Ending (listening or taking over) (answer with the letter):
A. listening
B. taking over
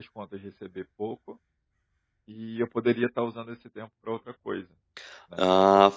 B